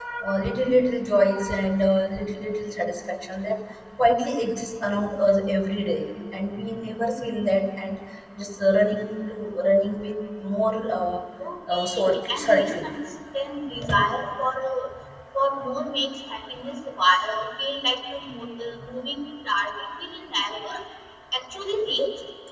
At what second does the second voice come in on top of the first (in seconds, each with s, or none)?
11.7 s